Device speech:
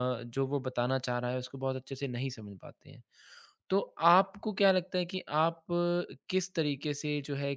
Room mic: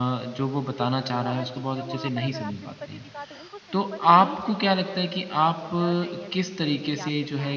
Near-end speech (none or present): present